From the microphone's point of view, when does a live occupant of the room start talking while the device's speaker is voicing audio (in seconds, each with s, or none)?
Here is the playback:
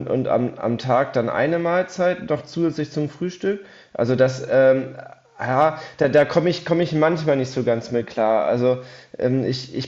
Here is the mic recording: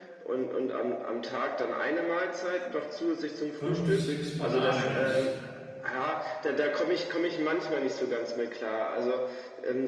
3.6 s